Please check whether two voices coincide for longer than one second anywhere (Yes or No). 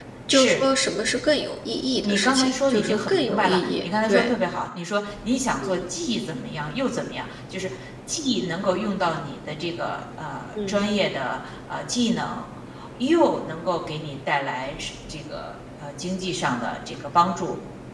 Yes